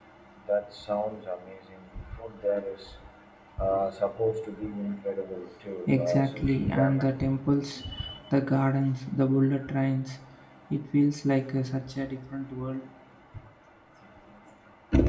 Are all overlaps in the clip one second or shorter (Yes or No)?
No